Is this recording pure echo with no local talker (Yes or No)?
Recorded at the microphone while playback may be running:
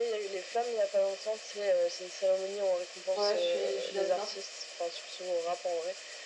No